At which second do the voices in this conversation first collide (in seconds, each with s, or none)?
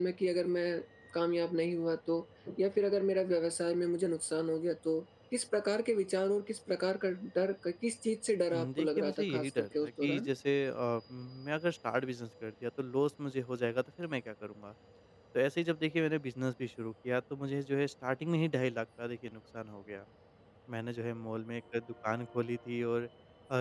8.5 s